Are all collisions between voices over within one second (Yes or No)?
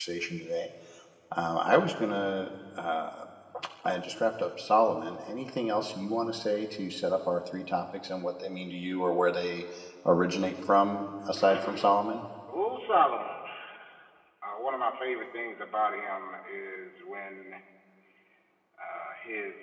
Yes